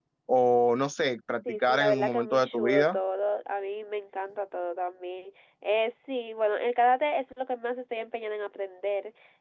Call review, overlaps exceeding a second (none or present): present